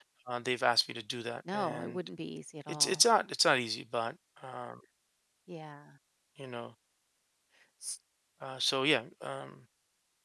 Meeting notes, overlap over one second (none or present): none